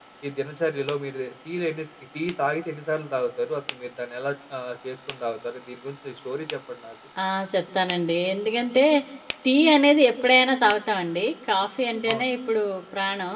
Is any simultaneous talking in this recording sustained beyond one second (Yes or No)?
No